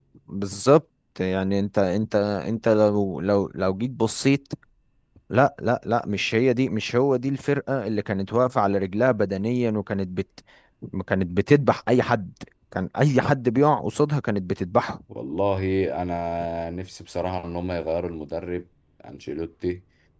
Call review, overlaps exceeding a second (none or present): none